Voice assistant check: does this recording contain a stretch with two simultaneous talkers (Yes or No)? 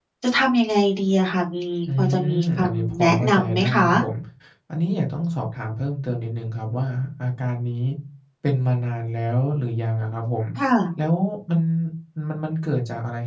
Yes